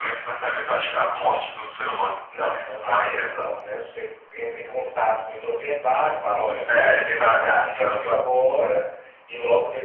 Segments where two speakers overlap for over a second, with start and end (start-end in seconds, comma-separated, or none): 6.7-8.1